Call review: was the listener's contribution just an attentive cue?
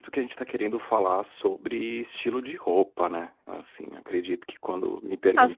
No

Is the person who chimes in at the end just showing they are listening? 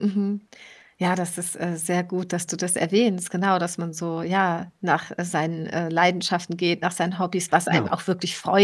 Yes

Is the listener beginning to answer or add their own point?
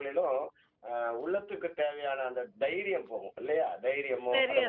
No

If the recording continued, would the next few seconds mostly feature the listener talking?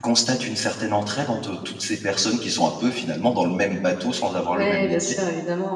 Yes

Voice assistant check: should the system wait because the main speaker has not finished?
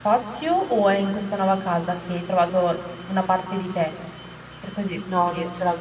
No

